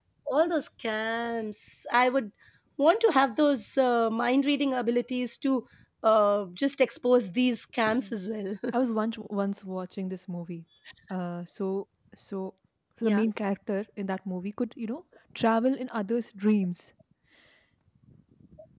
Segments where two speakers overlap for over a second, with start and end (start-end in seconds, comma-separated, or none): none